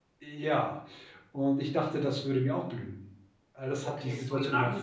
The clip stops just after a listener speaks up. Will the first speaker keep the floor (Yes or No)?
No